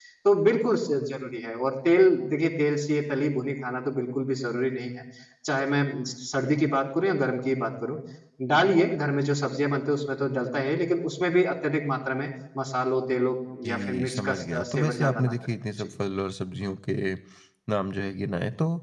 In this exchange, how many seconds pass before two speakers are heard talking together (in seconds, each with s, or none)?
13.6 s